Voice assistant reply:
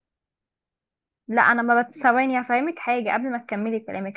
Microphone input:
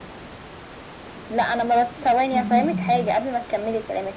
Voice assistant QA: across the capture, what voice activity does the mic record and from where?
both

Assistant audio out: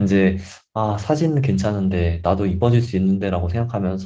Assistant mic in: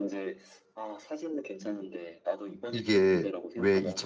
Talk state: both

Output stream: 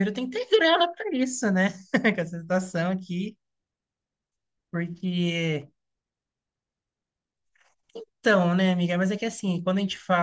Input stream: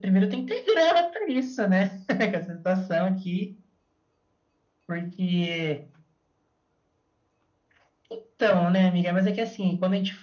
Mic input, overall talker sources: echo only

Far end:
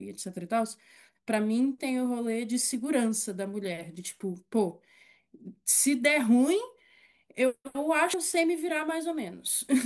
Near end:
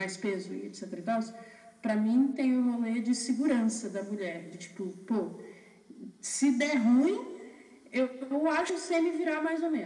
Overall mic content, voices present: echo only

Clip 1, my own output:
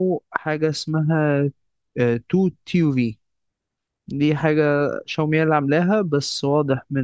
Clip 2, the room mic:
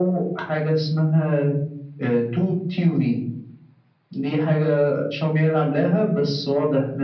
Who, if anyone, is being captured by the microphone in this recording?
echo only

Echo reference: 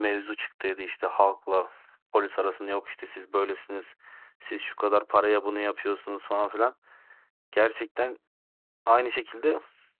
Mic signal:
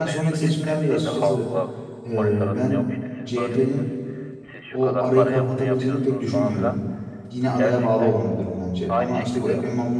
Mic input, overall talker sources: both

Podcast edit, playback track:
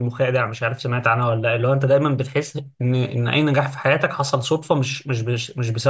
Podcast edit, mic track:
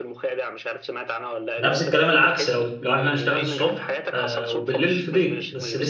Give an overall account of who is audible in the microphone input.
both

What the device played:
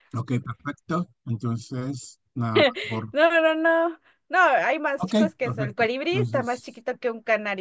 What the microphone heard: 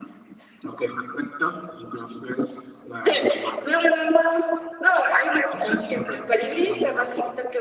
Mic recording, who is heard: echo only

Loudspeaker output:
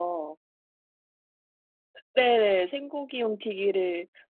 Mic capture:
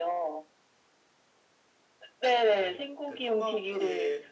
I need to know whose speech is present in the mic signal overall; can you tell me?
both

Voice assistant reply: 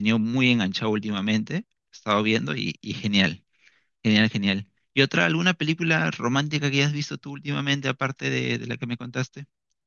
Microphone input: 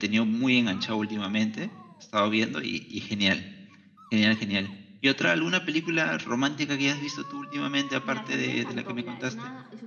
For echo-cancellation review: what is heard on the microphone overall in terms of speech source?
both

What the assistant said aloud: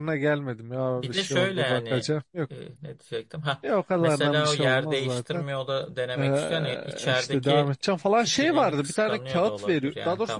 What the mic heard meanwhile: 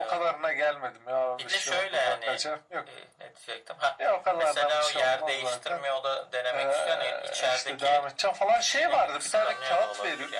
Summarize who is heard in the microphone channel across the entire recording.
echo only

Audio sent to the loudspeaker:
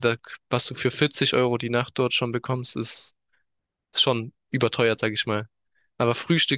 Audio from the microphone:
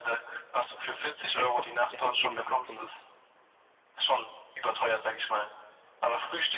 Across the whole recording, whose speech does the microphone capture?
both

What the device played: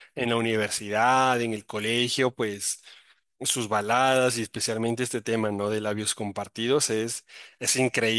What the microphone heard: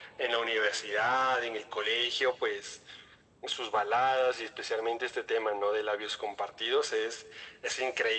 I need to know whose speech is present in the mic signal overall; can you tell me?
echo only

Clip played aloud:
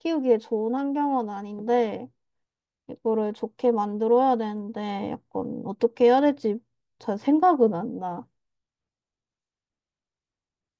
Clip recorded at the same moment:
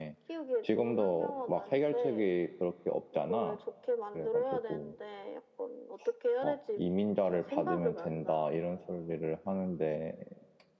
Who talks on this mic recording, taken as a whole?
both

